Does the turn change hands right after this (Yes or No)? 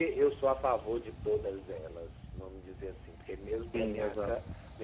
No